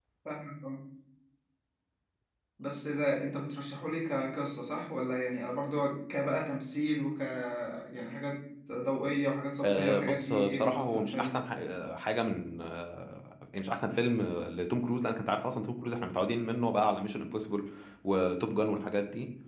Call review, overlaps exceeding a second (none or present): present